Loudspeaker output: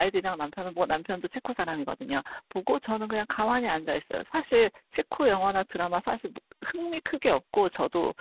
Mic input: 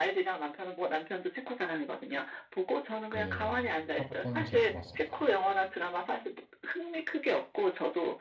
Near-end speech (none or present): present